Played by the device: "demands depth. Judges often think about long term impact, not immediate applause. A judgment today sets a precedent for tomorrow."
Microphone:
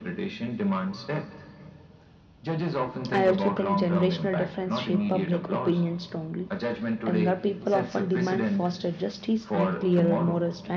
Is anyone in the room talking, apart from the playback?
Yes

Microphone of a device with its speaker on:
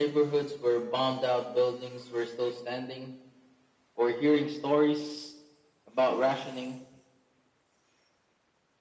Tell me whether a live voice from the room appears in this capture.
No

